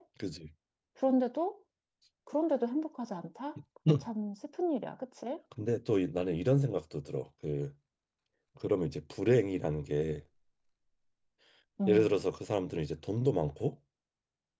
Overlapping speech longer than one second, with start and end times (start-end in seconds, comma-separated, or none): none